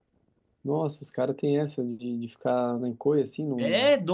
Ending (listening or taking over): taking over